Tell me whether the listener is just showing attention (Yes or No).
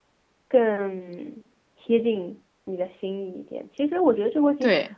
Yes